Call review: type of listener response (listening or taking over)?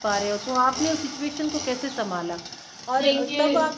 listening